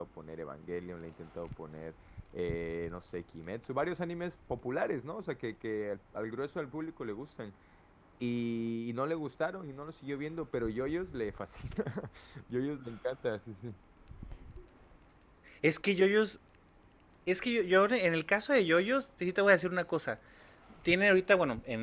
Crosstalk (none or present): none